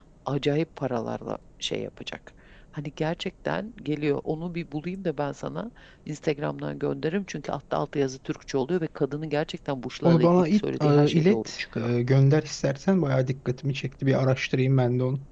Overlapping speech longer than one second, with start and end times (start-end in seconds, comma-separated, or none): 10.0-11.9